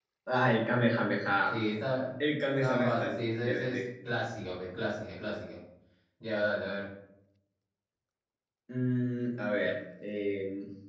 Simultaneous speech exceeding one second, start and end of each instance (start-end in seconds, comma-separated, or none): 2.6-3.8